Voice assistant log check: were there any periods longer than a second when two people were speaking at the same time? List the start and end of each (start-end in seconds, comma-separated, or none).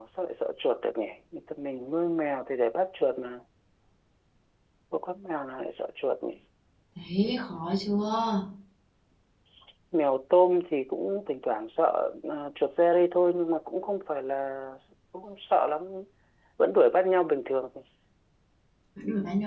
none